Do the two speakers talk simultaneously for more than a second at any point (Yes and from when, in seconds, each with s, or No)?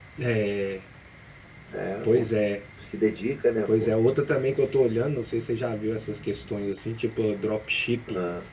No